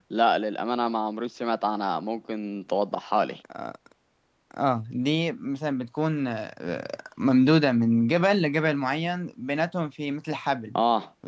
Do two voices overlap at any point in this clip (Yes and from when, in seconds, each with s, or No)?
No